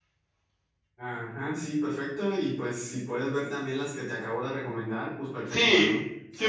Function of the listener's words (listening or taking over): taking over